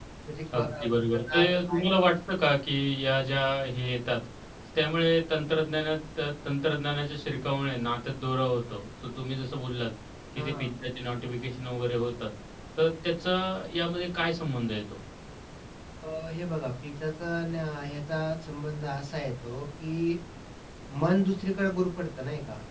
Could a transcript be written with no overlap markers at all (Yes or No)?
No